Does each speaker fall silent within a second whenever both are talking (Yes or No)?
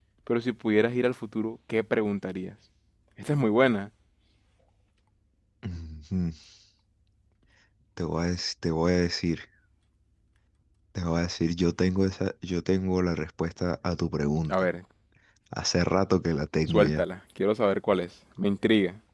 Yes